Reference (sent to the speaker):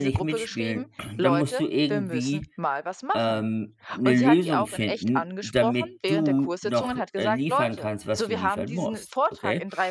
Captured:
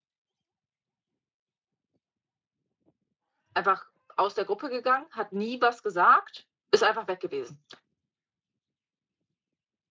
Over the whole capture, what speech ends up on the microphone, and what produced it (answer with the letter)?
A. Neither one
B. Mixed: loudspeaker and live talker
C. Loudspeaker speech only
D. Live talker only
D